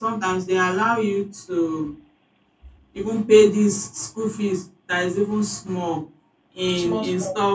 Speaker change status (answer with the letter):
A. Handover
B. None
B